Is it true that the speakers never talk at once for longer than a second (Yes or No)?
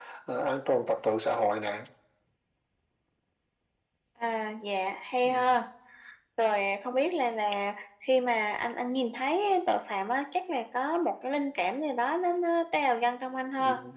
Yes